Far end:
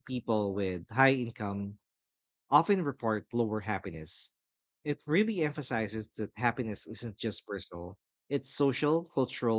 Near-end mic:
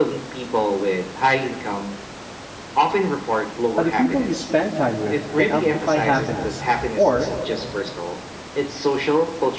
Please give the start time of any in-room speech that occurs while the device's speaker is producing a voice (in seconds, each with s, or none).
3.8 s